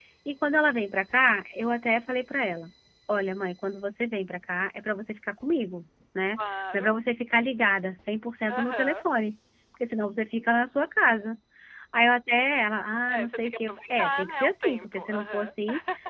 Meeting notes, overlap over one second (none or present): present